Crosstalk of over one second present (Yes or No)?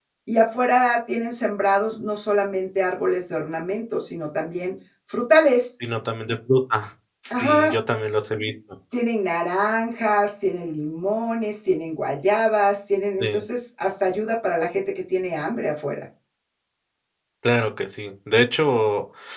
No